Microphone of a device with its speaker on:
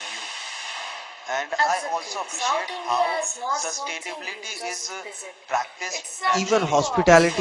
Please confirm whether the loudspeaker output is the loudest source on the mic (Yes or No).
No